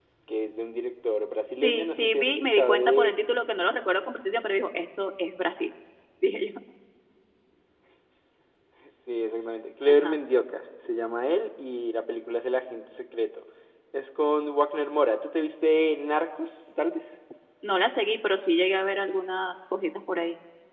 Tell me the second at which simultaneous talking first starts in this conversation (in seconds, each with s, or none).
1.6 s